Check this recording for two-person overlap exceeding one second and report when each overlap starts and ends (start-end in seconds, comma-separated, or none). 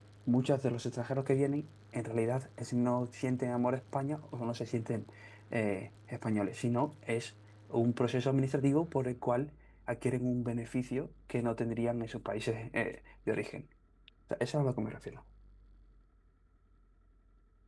none